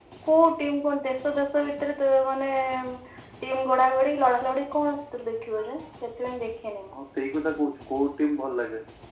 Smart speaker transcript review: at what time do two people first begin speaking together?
none

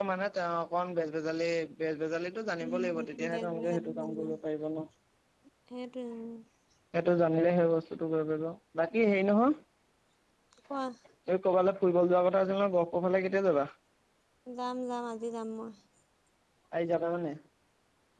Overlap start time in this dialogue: 3 s

